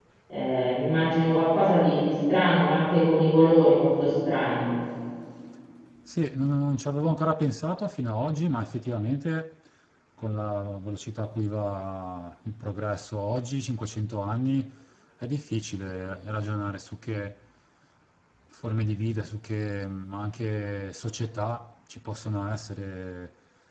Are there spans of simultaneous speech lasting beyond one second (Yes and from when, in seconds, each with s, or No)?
No